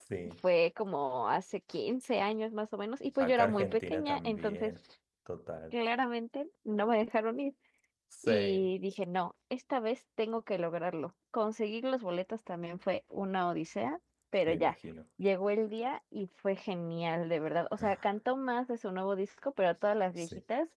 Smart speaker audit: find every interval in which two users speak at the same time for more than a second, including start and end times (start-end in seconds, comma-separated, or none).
3.2-4.8